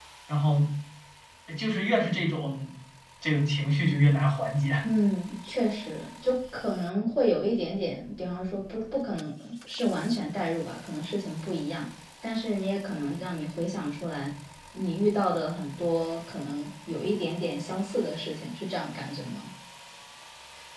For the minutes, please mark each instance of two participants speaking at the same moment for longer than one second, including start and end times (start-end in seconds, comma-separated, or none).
none